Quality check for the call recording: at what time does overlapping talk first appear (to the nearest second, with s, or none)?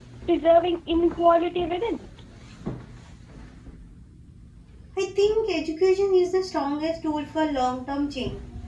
none